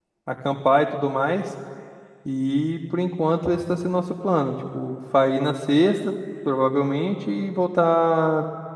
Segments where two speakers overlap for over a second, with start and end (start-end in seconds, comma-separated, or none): none